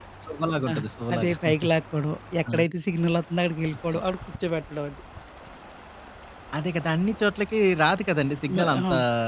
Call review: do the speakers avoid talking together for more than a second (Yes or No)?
Yes